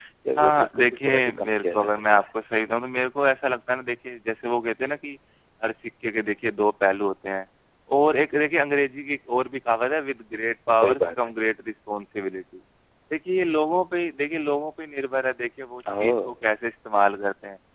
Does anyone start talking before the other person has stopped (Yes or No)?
Yes